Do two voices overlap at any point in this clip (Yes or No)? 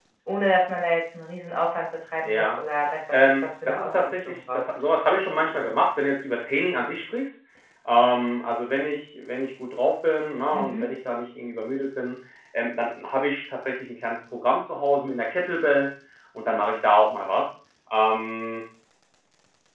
Yes